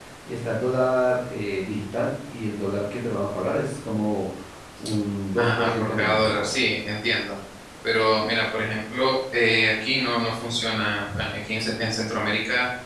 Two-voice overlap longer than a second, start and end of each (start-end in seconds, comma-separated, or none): 5.4-6.6